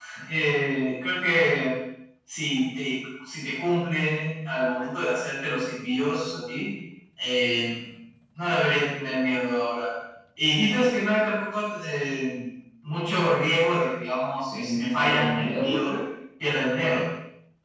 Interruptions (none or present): present